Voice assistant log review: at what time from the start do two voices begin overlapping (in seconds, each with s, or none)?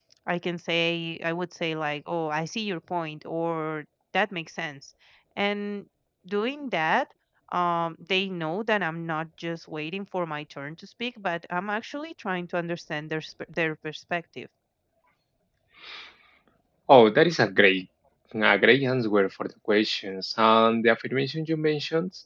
none